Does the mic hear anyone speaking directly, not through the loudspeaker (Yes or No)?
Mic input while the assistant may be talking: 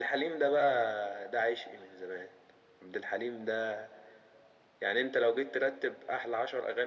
No